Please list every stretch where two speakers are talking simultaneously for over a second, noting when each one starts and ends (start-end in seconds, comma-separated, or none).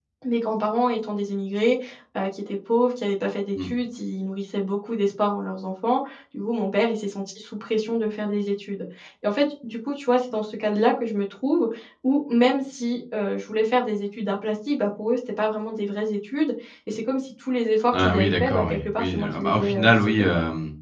17.9-20.1